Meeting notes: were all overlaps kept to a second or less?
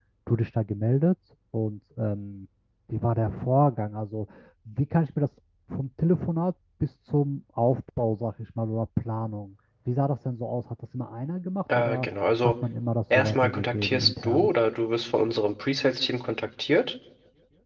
No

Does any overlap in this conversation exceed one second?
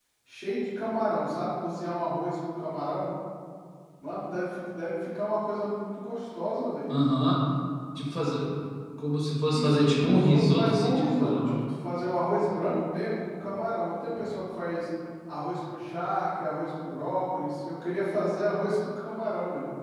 Yes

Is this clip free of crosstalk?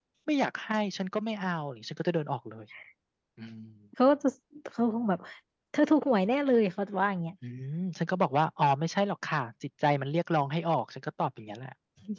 Yes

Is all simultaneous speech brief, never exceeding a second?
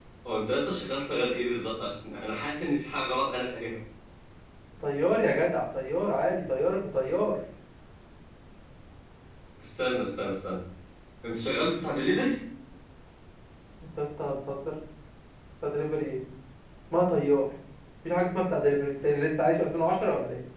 Yes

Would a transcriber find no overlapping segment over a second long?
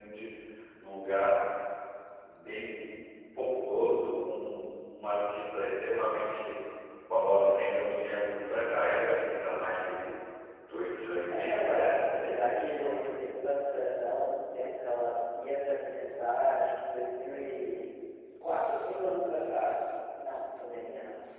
No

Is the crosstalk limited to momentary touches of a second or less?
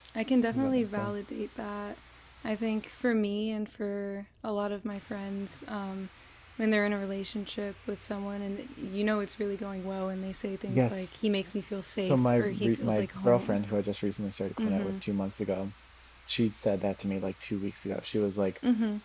No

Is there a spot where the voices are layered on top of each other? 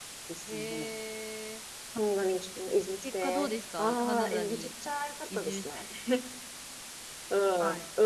Yes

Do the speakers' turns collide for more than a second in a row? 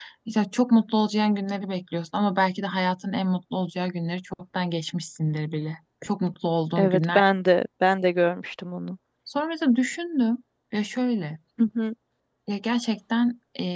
No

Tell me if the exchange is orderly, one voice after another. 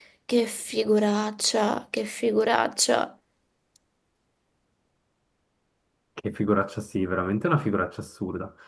Yes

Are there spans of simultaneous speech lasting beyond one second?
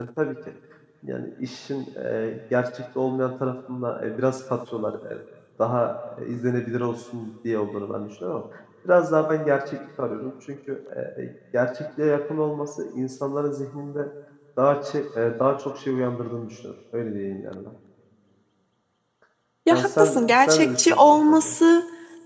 Yes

